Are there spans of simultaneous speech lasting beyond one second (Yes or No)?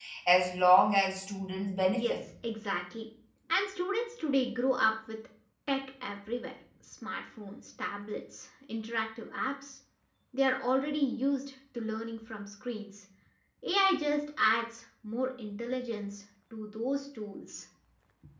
No